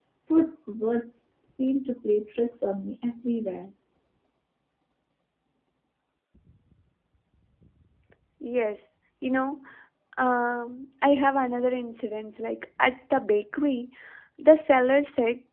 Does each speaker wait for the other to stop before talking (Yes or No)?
Yes